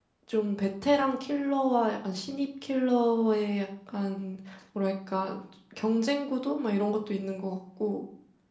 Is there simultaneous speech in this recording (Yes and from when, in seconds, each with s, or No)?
No